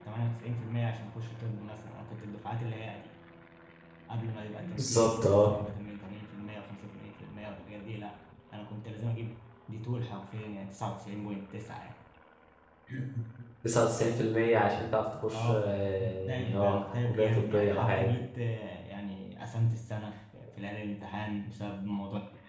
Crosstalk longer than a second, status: present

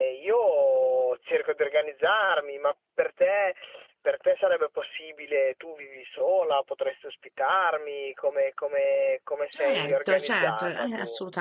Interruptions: present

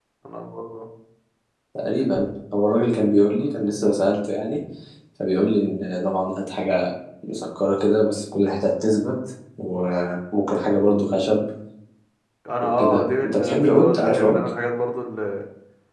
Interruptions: present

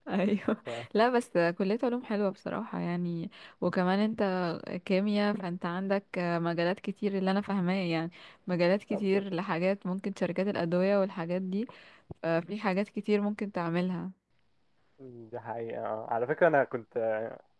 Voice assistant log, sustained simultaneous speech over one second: none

